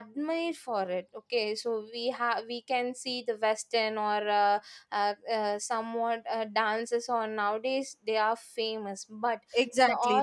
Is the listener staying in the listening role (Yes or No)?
No